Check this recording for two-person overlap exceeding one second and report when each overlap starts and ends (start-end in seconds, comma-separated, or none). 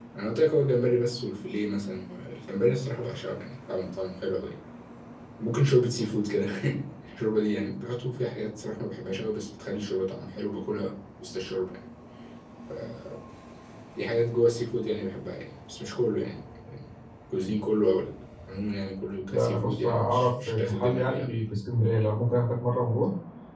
19.3-21.4